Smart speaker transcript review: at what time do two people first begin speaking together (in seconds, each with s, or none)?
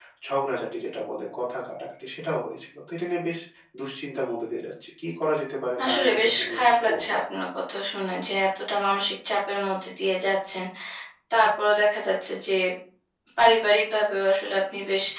5.8 s